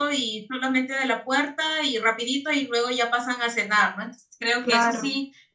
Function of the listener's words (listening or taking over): listening